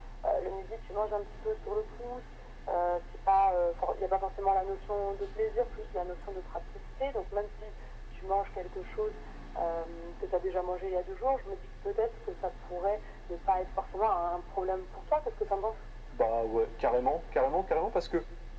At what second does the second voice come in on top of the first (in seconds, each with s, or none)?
none